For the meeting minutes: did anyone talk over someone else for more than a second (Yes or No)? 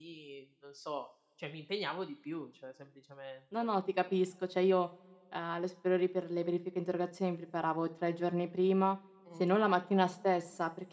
No